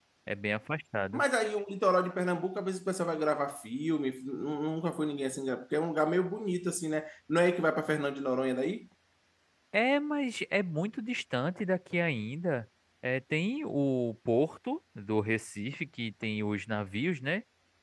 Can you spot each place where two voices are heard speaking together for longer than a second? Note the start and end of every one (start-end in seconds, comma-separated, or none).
none